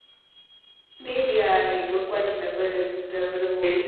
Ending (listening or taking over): taking over